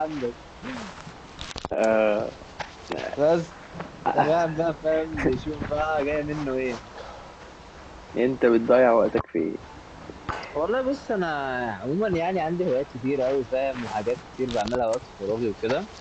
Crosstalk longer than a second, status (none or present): none